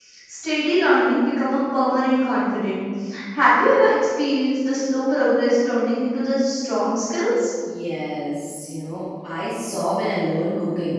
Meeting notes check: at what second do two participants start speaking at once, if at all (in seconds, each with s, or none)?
none